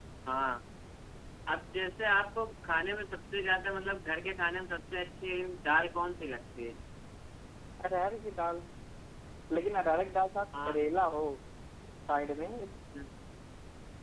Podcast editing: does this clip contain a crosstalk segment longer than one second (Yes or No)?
No